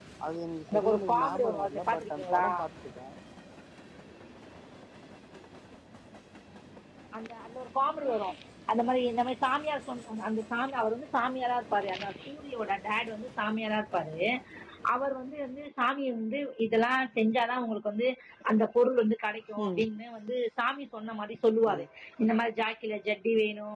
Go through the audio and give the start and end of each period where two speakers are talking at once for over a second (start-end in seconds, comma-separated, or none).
0.7-2.5